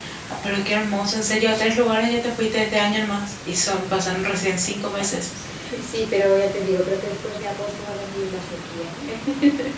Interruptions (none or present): none